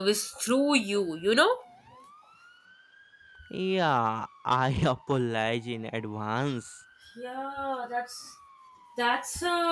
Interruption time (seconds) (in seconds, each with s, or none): none